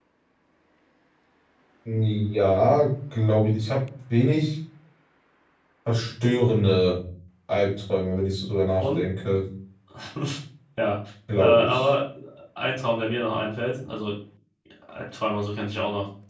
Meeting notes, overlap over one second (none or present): none